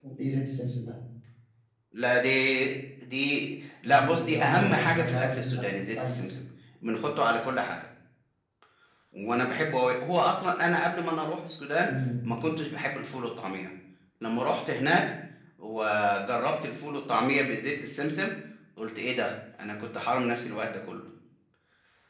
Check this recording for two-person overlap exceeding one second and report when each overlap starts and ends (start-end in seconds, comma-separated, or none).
3.9-5.6